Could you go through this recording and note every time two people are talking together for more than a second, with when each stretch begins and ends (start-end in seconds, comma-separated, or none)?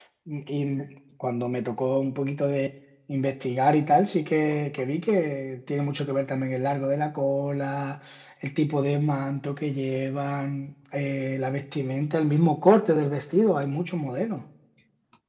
none